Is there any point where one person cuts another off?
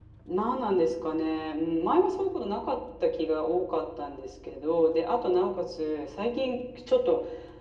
No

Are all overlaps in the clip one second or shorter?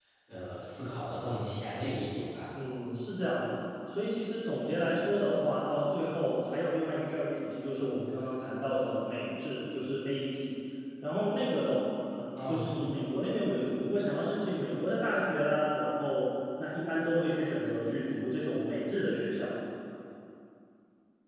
Yes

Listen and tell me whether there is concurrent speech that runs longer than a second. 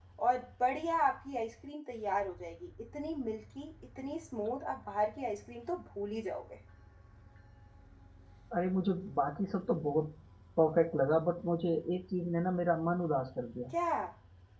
No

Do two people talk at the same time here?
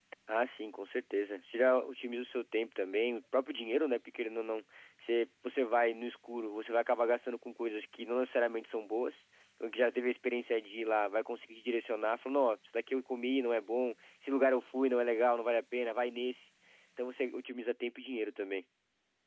No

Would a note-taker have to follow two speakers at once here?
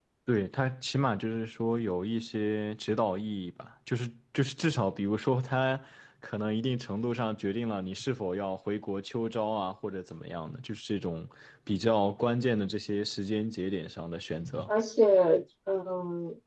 No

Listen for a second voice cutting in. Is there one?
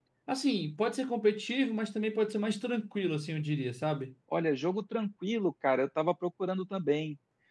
No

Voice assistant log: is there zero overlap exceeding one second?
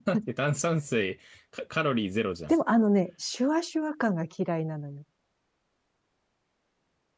Yes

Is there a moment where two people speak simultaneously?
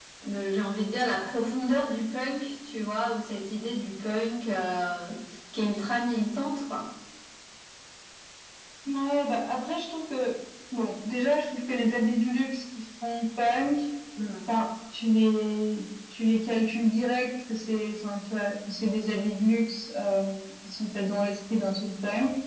No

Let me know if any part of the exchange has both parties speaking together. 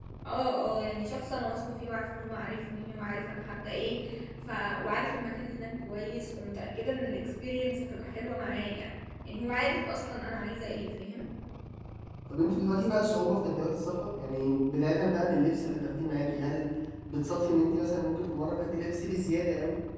No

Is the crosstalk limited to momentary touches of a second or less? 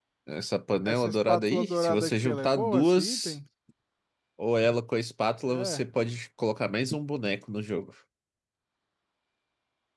No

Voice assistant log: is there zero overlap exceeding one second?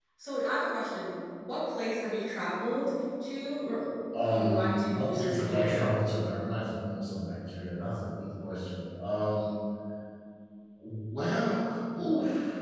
No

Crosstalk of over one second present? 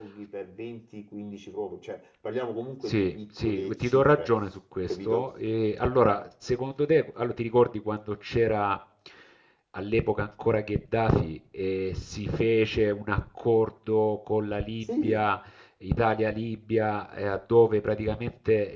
Yes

